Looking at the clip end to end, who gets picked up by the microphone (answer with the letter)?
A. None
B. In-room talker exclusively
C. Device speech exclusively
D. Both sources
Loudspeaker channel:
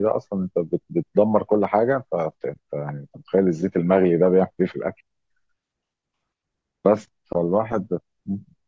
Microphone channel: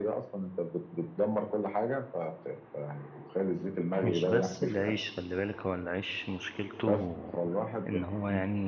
D